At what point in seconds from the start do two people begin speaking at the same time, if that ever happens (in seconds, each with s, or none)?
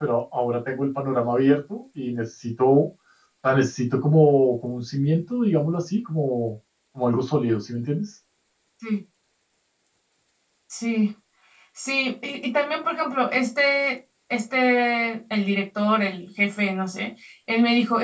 none